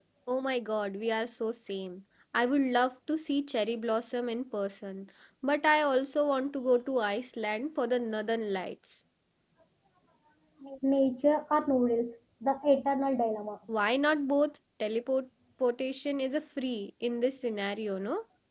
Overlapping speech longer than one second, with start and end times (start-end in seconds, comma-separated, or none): none